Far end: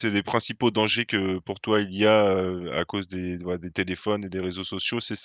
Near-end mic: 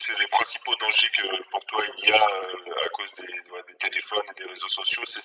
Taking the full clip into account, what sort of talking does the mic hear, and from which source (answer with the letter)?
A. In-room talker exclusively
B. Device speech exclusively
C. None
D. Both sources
B